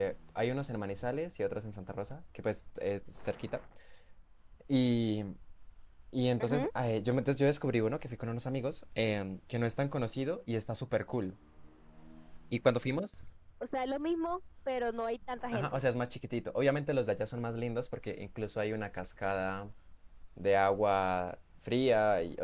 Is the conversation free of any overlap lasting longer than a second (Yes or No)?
Yes